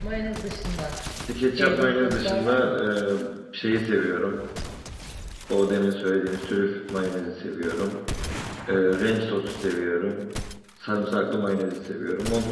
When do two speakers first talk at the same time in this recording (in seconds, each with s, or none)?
1.5 s